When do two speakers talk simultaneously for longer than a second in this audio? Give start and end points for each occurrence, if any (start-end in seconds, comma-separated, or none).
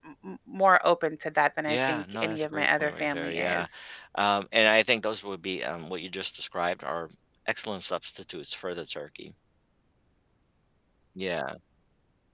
1.7-3.7